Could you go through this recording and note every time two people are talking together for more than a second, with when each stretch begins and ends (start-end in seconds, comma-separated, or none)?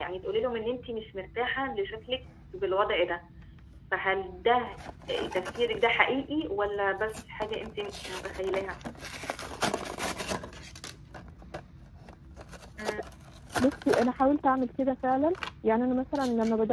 none